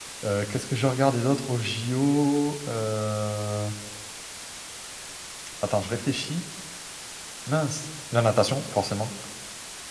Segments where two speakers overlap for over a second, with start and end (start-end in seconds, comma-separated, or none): none